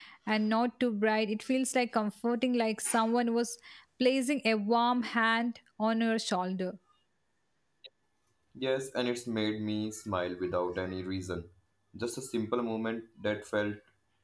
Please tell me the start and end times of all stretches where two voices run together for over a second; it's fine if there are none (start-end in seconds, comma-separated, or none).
none